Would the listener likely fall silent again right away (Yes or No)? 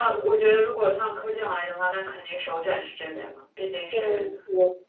No